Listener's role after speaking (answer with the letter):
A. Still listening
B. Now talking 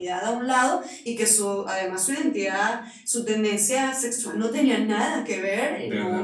A